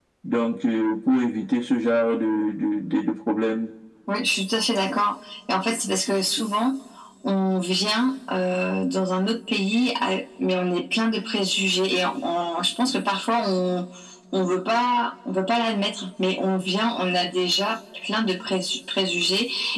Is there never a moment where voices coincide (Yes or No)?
Yes